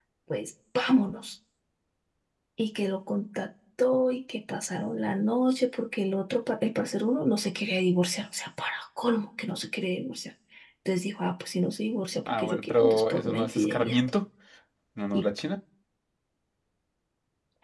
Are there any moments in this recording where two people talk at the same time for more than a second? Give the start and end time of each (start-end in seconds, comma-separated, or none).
12.3-14.0